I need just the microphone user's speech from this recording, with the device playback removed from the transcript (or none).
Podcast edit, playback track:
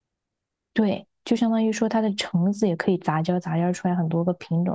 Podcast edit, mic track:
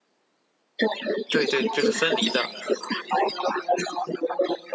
对对，就是分离的。